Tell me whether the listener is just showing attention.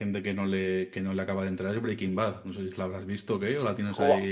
No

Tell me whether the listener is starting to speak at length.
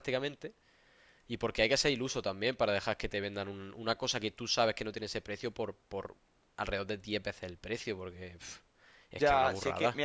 Yes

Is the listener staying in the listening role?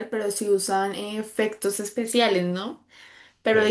Yes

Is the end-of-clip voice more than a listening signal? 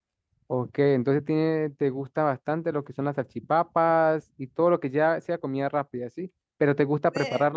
No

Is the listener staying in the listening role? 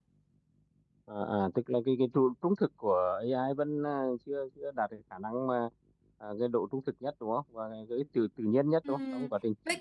No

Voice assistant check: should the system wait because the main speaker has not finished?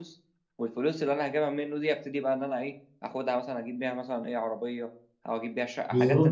No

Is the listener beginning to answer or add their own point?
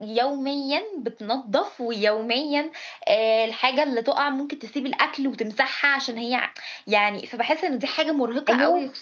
Yes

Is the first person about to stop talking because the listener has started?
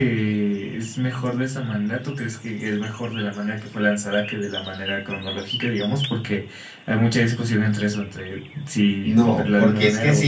Yes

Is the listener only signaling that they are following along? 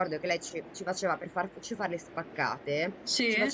Yes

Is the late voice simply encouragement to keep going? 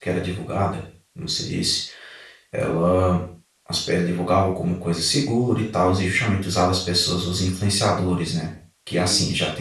Yes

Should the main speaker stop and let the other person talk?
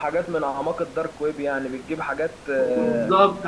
Yes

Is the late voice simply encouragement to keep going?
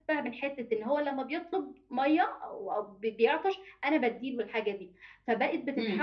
Yes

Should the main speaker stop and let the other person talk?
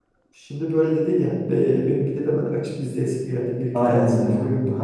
Yes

